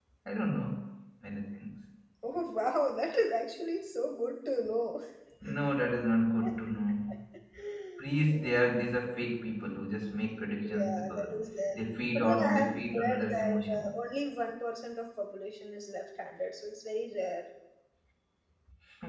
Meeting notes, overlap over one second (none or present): present